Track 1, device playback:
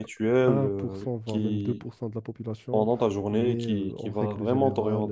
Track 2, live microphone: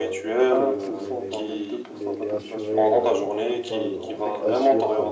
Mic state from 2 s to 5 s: both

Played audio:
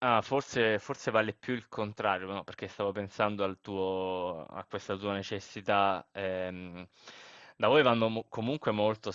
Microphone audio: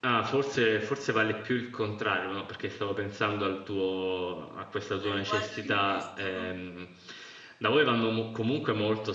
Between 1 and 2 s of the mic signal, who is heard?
echo only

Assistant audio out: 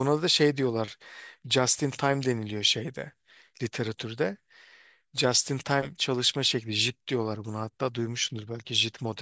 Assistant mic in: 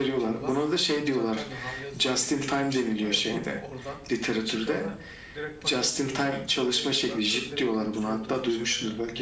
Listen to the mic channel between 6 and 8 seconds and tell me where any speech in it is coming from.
both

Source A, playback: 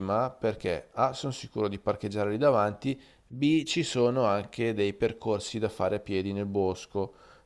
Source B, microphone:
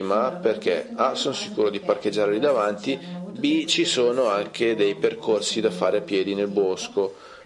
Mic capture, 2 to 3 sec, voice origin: both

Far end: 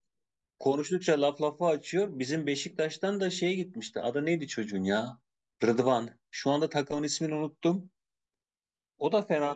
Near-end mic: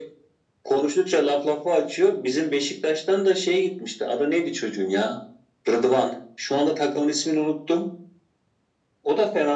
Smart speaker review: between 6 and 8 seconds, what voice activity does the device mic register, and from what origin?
echo only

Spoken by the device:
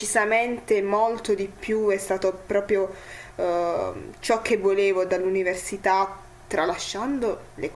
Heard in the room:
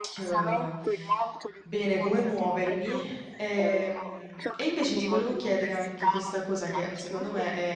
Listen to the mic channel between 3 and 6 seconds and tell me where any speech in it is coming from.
both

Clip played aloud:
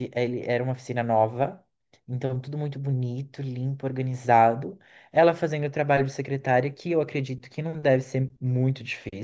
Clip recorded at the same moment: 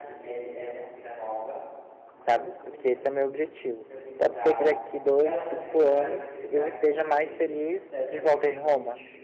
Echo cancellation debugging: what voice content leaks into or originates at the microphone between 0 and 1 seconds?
echo only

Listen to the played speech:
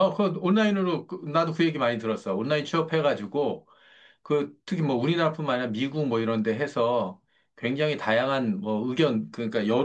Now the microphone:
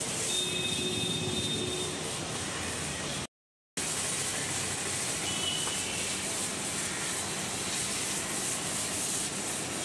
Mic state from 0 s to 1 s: neither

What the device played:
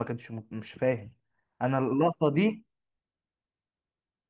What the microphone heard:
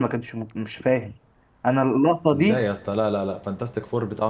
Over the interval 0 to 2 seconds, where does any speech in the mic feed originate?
echo only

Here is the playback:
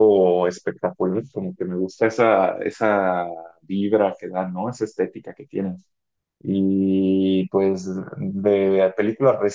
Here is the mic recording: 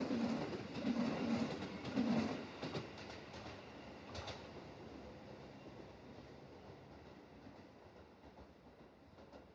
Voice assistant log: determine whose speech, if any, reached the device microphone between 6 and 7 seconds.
neither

